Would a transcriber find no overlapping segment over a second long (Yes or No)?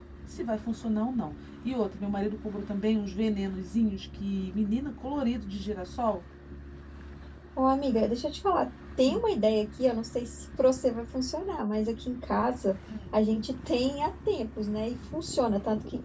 Yes